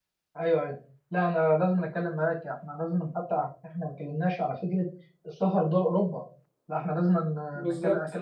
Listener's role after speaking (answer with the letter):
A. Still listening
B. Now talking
A